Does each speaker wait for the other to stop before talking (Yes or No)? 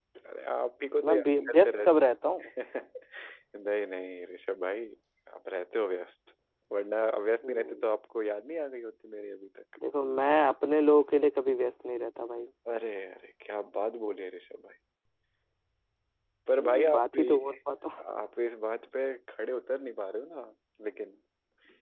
No